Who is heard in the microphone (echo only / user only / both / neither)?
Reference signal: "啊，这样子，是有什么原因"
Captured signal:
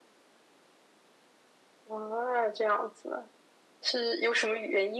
echo only